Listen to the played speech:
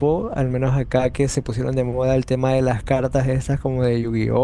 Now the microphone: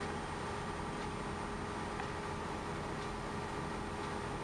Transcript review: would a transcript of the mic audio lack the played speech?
Yes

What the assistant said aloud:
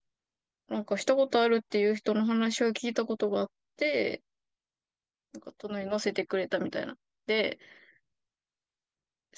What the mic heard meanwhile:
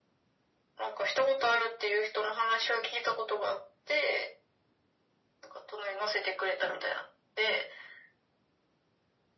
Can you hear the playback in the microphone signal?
Yes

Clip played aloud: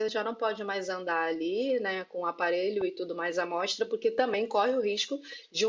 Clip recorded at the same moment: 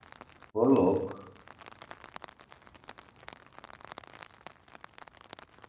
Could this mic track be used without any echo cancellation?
Yes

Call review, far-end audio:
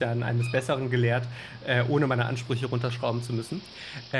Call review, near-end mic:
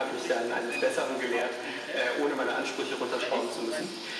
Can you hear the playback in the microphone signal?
Yes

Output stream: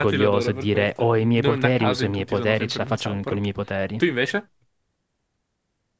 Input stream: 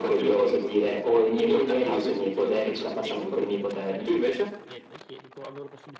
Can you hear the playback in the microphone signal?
Yes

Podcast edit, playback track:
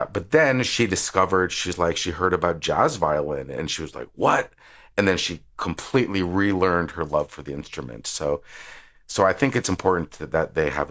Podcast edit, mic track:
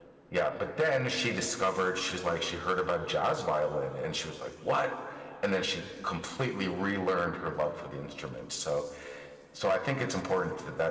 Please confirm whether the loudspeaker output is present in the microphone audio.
Yes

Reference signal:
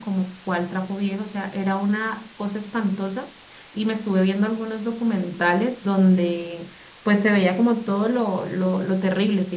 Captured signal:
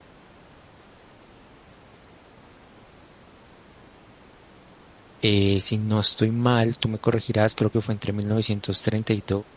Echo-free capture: Yes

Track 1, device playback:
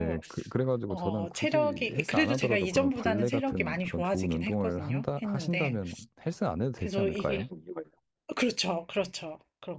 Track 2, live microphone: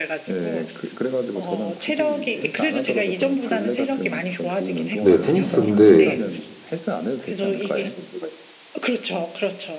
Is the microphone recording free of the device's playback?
No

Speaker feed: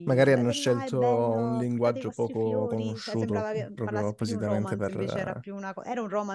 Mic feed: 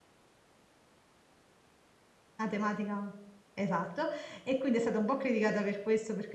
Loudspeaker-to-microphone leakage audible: No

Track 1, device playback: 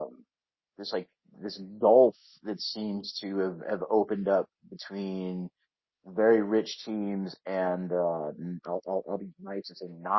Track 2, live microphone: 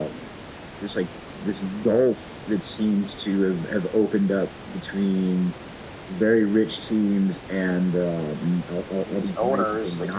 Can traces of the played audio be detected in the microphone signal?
Yes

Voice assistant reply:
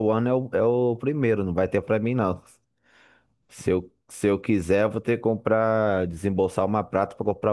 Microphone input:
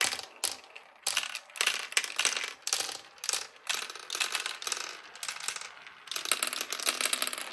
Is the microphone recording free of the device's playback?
Yes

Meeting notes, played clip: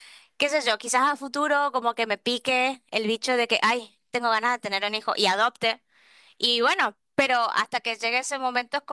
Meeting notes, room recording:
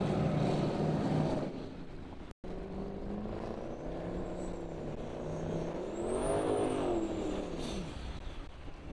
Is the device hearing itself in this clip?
No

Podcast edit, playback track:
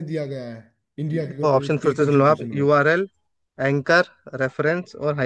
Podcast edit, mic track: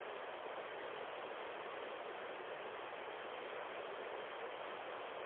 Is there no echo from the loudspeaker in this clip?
Yes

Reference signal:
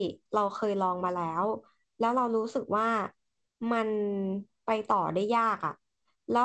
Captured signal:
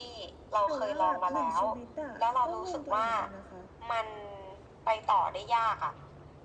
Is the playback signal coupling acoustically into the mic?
Yes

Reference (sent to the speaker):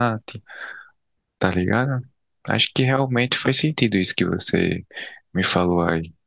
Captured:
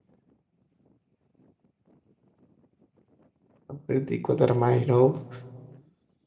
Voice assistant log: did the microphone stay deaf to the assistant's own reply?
Yes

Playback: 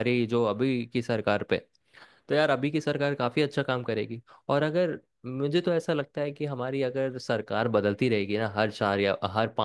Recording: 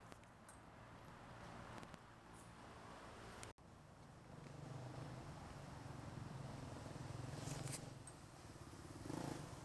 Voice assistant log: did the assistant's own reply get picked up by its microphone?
No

